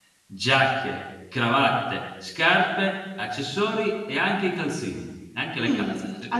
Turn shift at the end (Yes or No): Yes